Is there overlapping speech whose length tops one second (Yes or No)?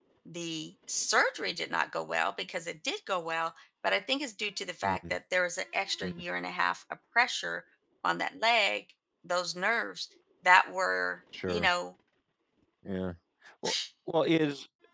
No